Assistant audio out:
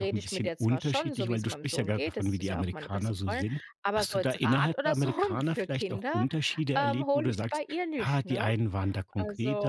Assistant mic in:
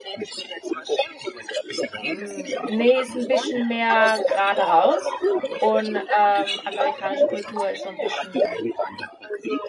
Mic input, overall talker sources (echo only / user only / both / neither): both